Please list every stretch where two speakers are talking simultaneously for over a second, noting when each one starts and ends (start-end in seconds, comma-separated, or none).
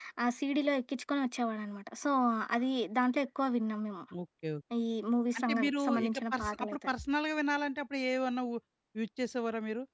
5.3-6.8